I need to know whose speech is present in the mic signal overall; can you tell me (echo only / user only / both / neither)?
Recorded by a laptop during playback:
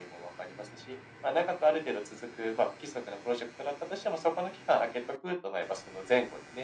echo only